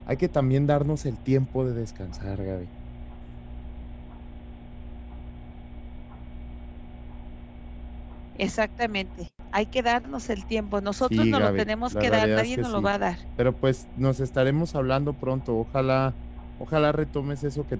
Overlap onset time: 11.1 s

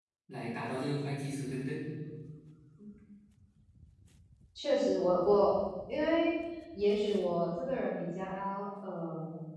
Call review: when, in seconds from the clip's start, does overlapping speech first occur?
none

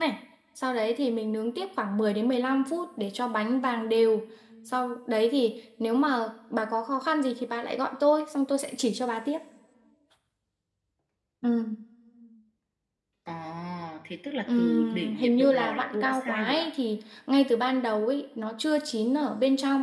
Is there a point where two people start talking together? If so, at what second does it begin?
14.6 s

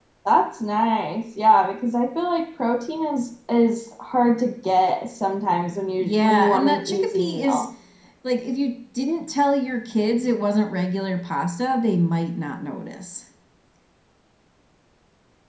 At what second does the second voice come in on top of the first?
6.0 s

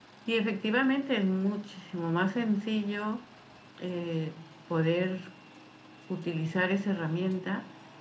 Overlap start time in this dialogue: none

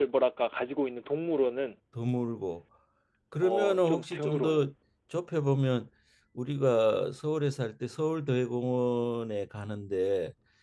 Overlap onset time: 3.4 s

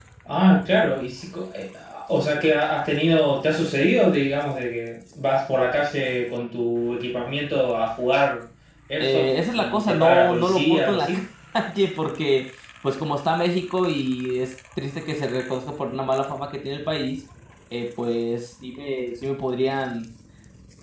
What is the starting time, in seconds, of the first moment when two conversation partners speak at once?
9.0 s

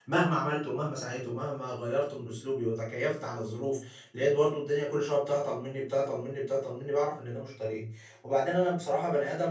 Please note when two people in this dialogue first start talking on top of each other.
none

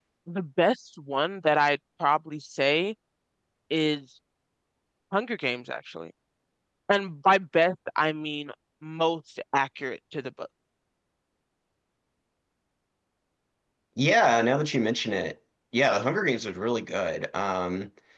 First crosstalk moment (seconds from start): none

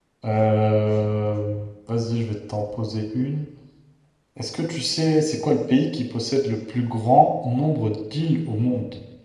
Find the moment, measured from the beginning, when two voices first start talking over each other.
none

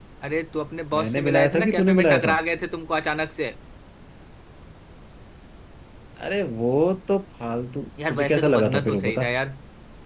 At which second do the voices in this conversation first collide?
0.9 s

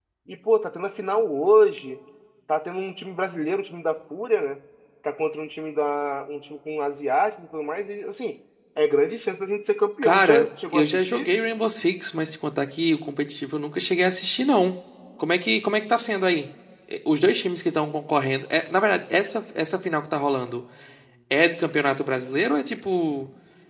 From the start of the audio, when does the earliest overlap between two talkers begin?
10.0 s

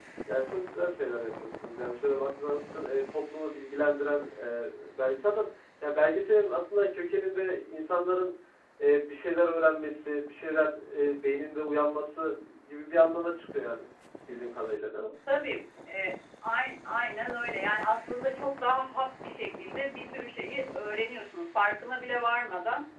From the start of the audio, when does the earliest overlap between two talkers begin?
none

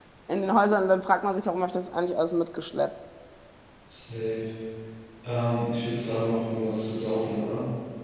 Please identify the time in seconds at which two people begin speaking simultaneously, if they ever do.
none

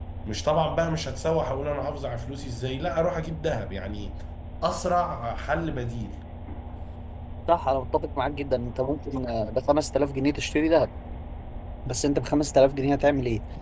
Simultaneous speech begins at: none

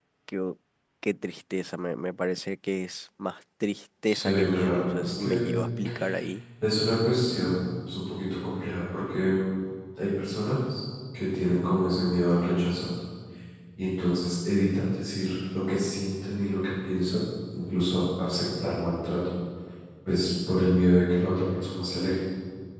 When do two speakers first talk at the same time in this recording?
4.1 s

